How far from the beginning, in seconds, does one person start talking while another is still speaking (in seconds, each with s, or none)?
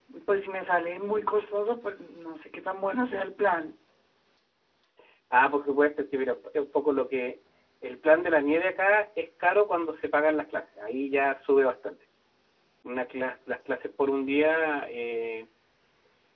none